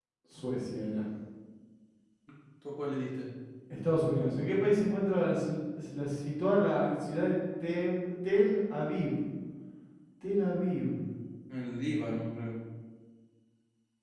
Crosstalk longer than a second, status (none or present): none